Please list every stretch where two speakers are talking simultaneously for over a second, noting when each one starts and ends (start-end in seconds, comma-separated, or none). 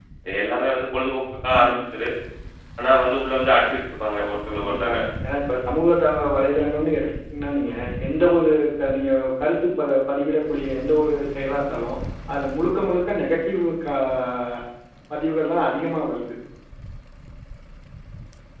none